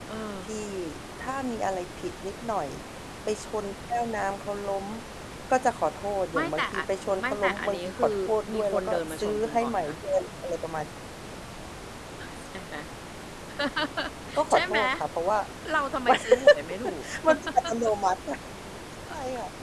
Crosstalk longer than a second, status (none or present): present